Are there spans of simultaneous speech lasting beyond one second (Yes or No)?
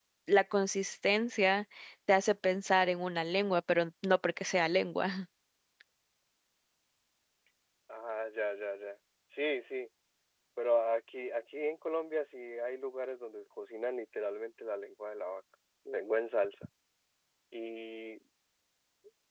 No